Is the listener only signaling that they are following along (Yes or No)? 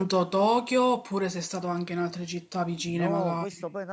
No